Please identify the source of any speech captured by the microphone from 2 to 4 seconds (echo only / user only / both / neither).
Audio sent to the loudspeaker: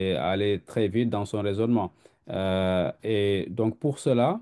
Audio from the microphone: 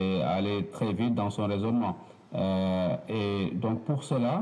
echo only